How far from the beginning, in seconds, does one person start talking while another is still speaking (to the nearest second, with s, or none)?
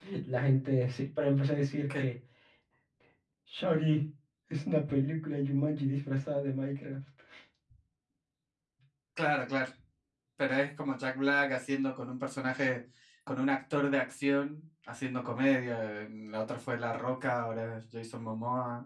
none